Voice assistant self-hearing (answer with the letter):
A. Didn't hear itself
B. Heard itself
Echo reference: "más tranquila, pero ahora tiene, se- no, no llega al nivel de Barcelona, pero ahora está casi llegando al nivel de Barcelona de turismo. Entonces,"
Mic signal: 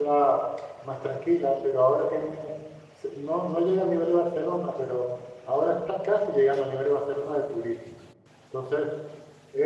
B